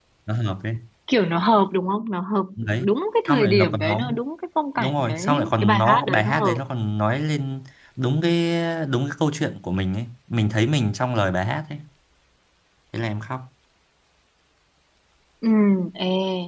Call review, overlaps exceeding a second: present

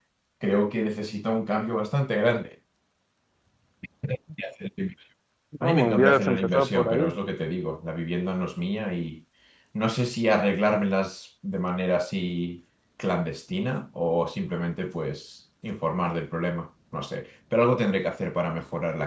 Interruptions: present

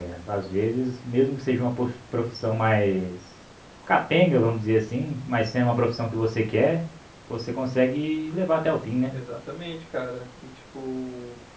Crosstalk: none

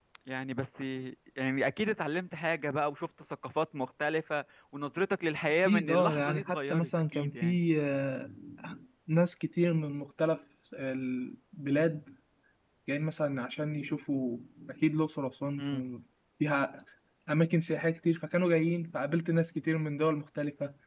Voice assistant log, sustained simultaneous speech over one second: present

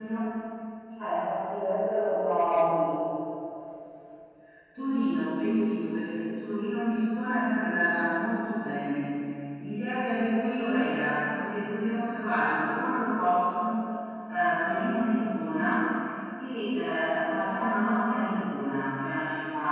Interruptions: none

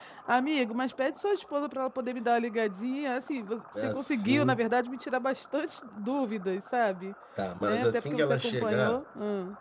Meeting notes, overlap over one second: present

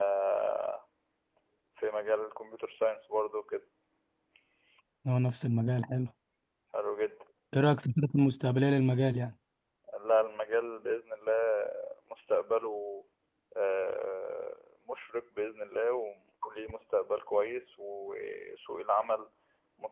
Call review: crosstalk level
none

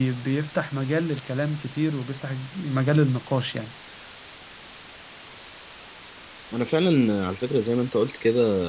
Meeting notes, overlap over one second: none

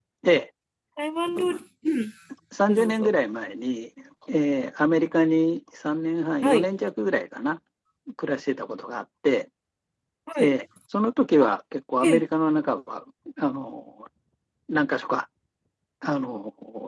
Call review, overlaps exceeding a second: none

